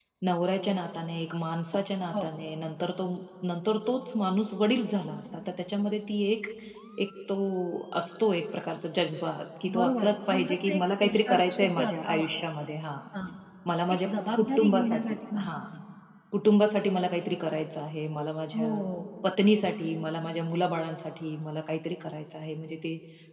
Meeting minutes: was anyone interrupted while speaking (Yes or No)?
Yes